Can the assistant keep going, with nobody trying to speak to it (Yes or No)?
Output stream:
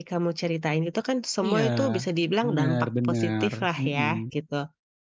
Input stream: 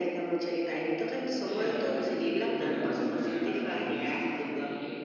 No